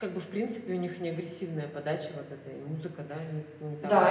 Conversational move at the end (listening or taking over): taking over